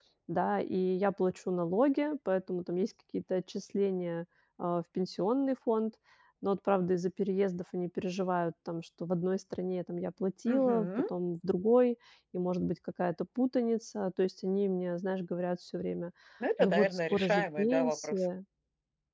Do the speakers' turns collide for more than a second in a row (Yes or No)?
Yes